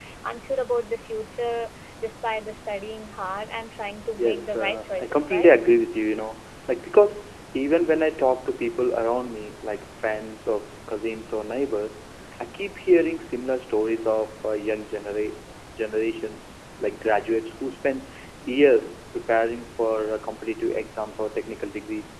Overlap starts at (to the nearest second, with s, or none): 4 s